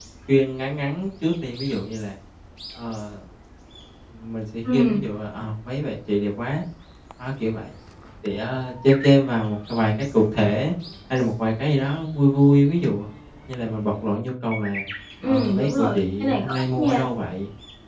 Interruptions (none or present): present